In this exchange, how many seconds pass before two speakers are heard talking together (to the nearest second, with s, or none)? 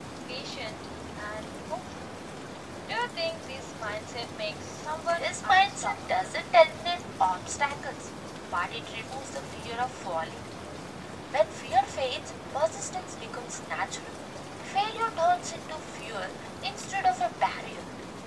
5 s